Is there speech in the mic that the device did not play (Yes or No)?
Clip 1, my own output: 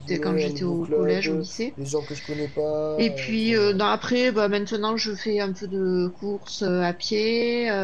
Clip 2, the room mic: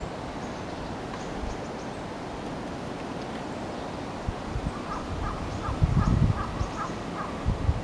No